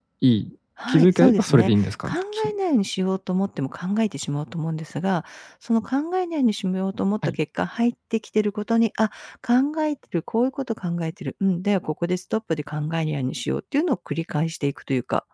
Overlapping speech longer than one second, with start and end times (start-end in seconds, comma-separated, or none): 0.9-2.5